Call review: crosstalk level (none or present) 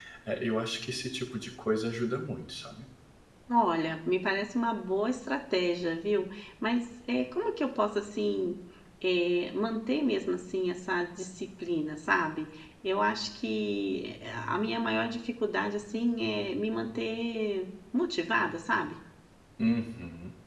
none